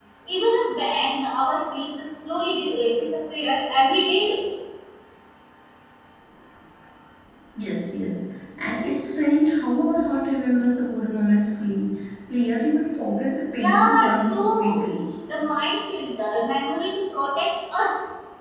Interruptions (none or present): present